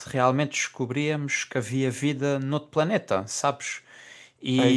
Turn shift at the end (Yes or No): No